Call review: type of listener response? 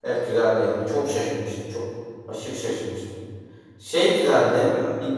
listening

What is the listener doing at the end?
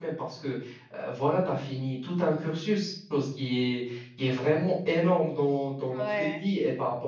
listening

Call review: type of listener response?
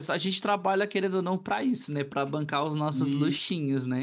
taking over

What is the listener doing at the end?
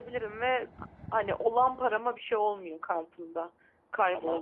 listening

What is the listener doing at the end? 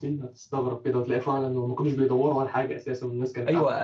taking over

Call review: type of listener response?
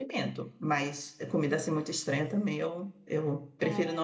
listening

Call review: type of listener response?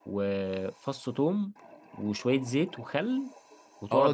taking over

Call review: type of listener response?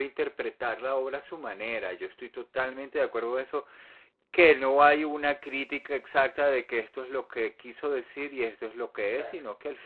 listening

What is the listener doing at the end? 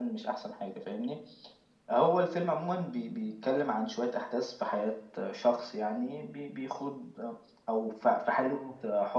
listening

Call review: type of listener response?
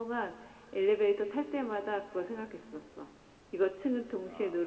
listening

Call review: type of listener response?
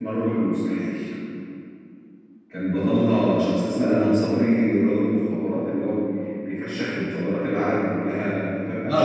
taking over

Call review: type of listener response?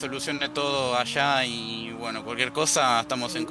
taking over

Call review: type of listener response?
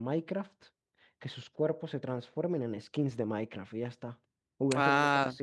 taking over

